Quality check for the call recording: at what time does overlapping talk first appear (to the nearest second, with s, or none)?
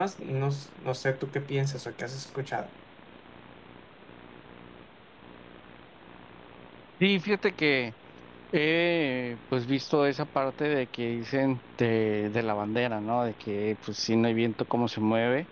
none